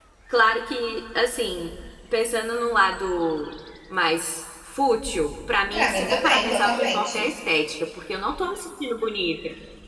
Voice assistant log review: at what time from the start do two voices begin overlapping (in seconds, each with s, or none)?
5.7 s